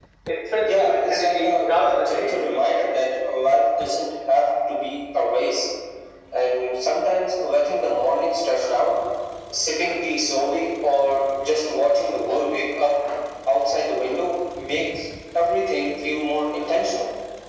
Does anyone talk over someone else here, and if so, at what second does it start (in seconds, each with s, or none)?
0.6 s